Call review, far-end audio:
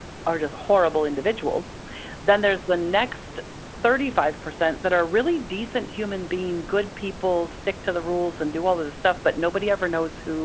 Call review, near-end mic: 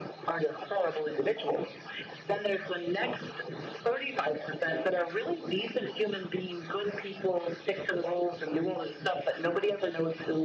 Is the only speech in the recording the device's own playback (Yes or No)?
Yes